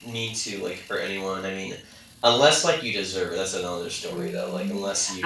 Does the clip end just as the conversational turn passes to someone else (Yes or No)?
Yes